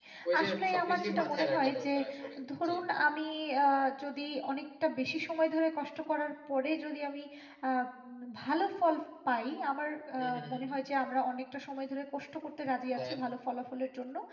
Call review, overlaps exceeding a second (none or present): present